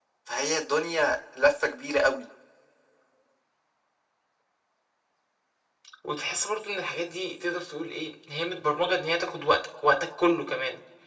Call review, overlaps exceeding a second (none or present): none